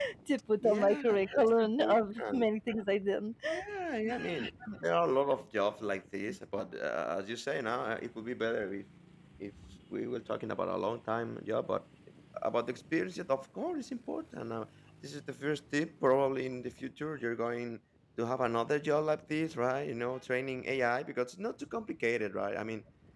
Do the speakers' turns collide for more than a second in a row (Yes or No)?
Yes